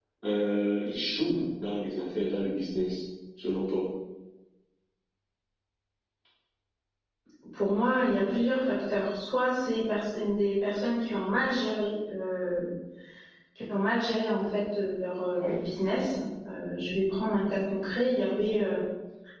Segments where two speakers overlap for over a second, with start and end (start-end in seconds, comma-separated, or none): none